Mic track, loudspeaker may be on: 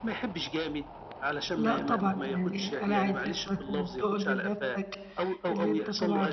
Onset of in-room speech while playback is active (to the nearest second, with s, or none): 2 s